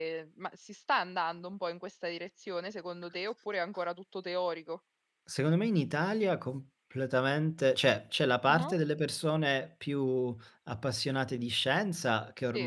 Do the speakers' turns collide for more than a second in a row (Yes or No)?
No